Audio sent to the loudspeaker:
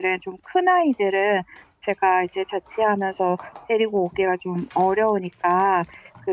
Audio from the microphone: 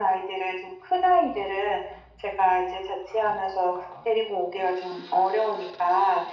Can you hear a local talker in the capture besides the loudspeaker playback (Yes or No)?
No